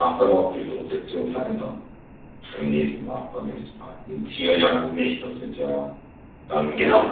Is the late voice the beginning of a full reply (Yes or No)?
No